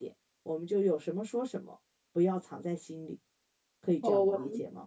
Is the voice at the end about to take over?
Yes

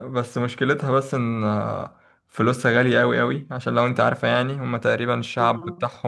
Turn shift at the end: No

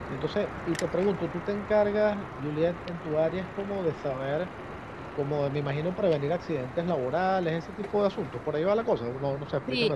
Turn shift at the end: Yes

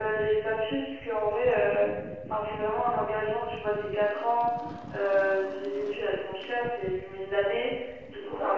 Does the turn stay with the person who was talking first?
Yes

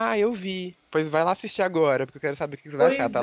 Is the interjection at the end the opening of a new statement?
Yes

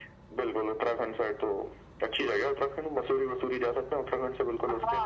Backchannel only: No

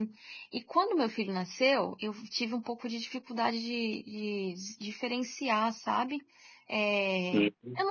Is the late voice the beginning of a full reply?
No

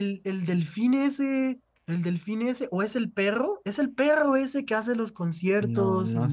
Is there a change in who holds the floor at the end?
Yes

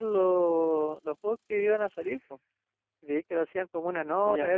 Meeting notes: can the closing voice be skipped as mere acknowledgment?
Yes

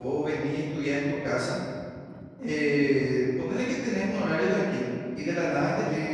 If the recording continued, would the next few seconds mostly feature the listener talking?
No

